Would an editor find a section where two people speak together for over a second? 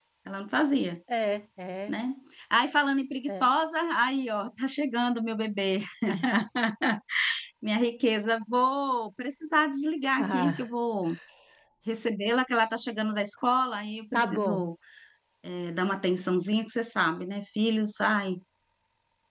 No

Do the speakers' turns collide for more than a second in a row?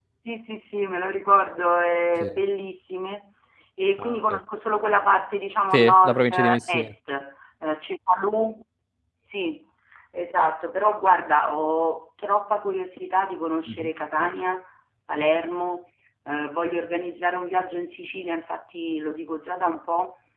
Yes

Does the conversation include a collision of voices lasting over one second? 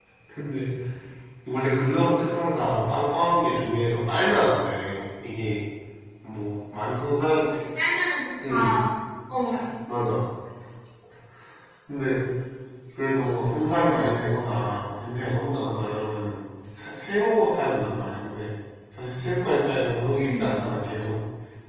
No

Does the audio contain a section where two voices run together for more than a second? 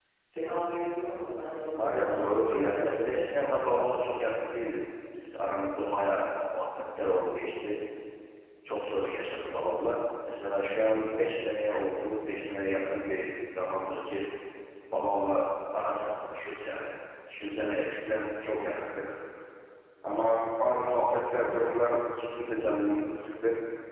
No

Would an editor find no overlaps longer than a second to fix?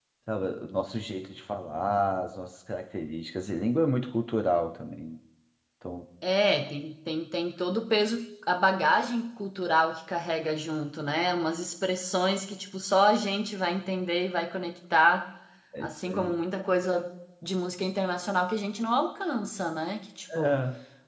Yes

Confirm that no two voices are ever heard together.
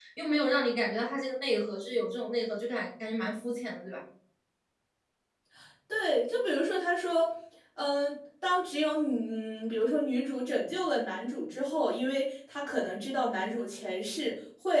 Yes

